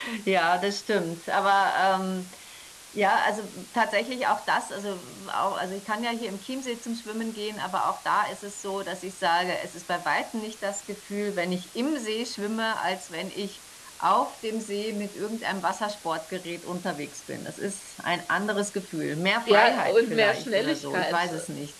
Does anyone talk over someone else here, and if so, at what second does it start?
19 s

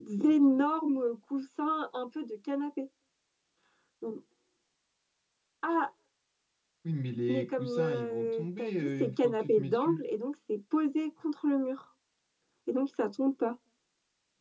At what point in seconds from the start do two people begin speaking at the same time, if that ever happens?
7 s

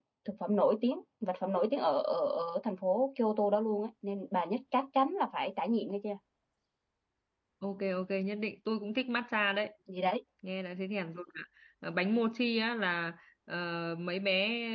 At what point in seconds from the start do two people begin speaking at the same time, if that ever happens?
none

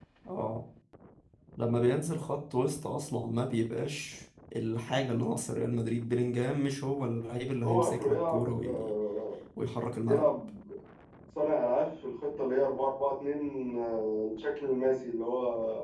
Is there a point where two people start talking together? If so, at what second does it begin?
8 s

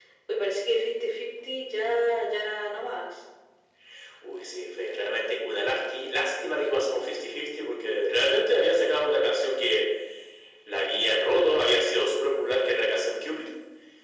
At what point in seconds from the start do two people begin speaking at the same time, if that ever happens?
none

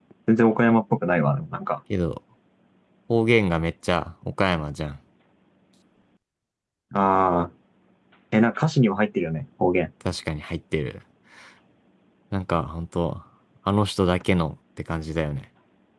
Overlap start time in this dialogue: none

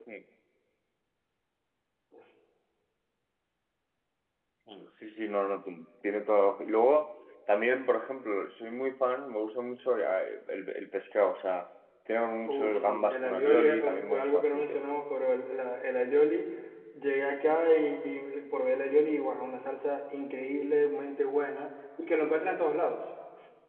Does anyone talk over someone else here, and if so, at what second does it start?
12 s

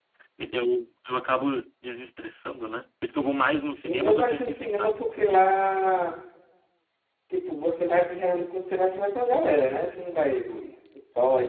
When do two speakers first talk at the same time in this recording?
4 s

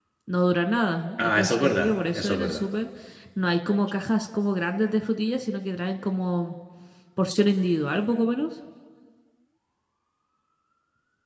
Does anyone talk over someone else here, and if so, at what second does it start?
1 s

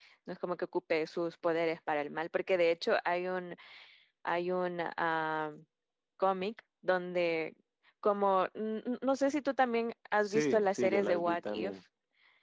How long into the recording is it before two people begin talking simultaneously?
10 s

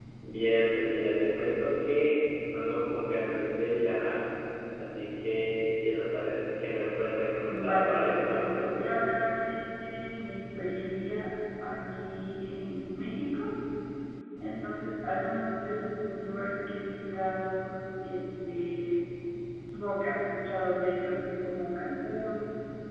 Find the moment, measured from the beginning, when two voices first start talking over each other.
7 s

